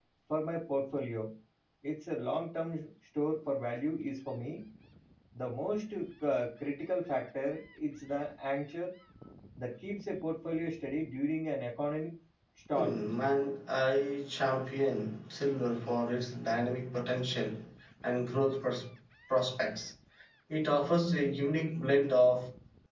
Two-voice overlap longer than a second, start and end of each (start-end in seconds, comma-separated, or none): none